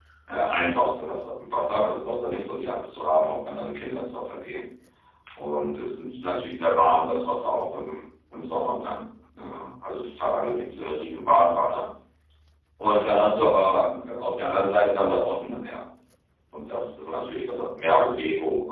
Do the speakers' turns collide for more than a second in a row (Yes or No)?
No